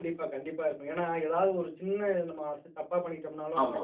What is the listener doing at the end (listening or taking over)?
listening